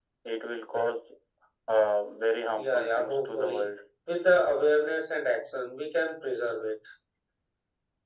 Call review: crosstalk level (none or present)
present